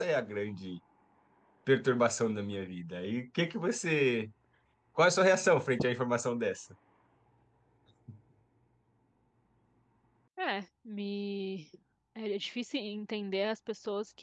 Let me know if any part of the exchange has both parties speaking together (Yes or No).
No